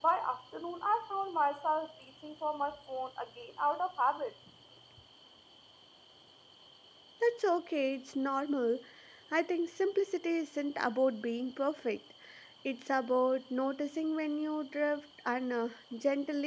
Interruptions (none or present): none